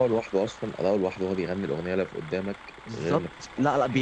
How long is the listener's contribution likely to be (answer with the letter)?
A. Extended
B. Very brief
A